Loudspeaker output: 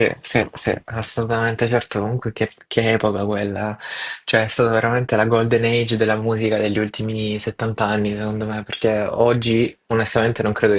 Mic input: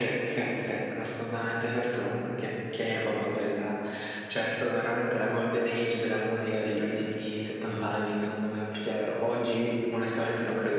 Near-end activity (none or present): present